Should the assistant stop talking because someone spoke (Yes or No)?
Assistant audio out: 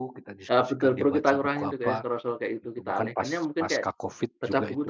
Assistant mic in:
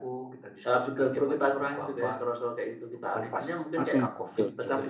Yes